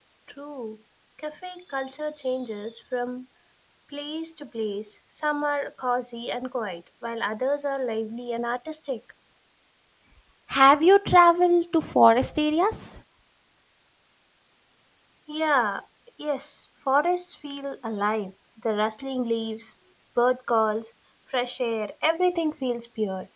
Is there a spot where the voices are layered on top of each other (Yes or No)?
No